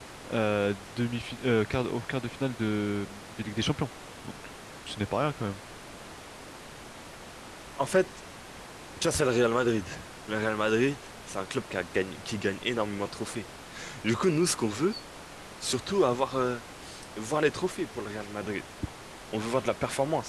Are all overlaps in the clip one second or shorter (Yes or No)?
Yes